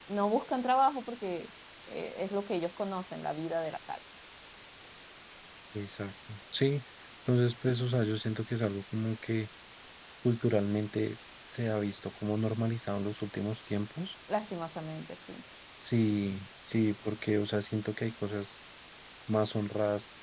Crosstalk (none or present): none